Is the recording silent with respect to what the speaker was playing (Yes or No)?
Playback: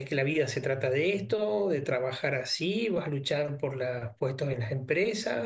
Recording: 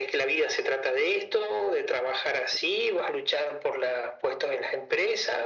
No